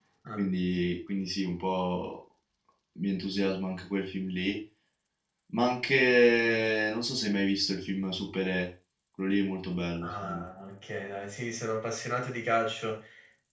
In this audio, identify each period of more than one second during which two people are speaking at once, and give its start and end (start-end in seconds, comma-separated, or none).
none